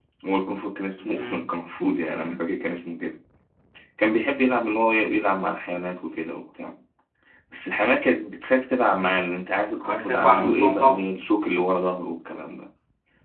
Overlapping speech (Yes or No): Yes